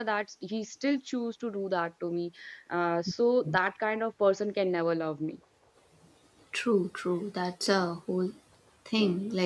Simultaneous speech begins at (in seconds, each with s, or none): none